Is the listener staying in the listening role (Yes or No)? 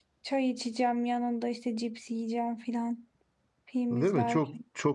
No